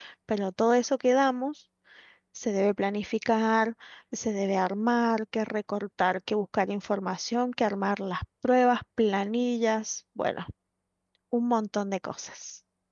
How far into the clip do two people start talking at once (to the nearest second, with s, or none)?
none